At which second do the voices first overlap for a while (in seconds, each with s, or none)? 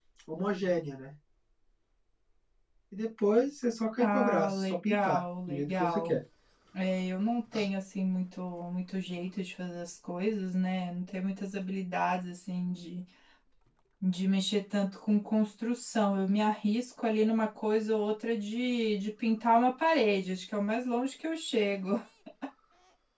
4.0 s